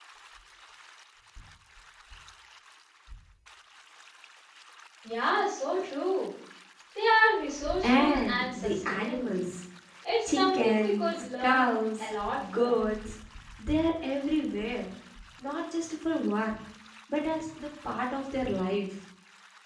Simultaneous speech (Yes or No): Yes